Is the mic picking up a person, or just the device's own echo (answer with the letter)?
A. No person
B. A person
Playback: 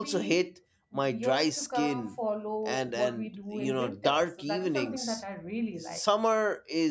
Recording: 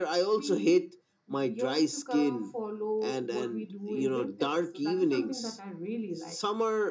A